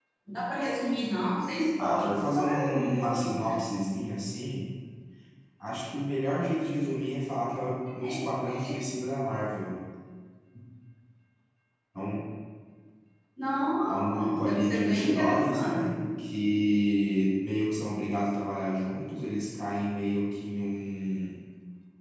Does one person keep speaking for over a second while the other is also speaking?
Yes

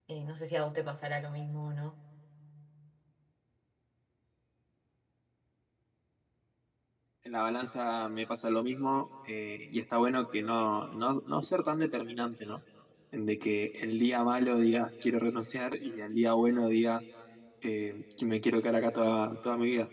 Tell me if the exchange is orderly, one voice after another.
Yes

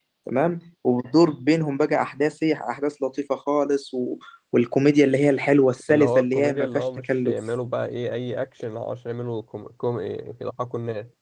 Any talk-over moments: Yes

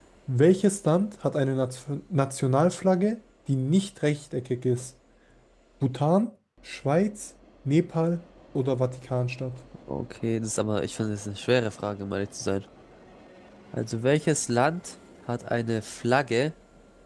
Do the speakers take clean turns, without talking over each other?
Yes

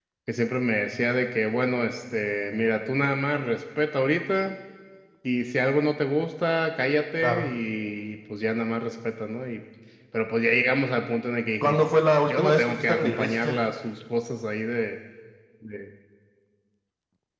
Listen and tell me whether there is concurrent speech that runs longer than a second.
Yes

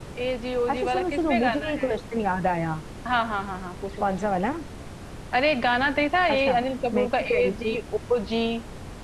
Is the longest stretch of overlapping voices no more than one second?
No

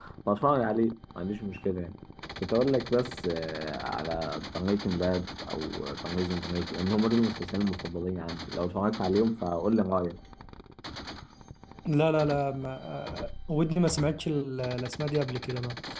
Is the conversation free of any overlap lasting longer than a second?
Yes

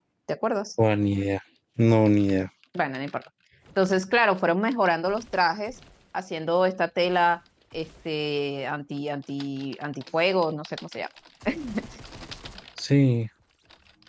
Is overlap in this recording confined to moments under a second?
Yes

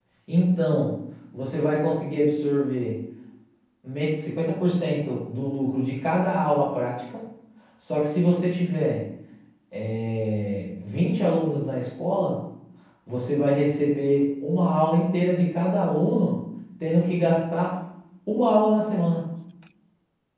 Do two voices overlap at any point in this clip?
No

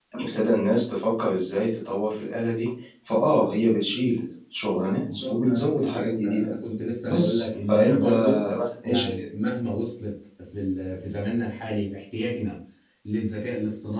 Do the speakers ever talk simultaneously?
Yes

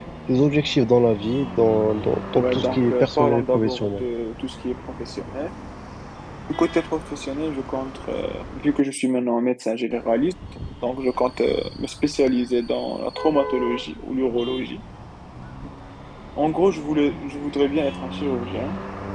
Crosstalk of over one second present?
Yes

